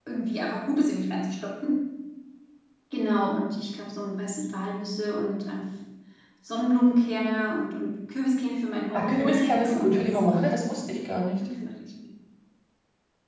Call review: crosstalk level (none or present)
present